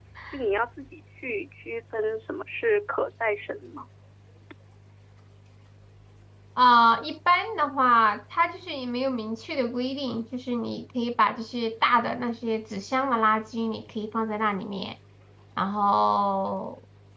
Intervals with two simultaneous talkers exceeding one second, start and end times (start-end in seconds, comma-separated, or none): none